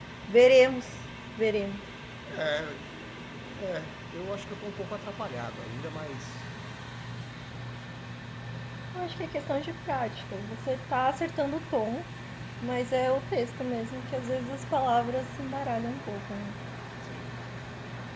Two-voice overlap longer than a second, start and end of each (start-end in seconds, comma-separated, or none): none